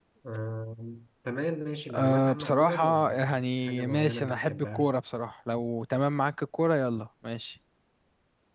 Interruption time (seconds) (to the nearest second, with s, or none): 2 s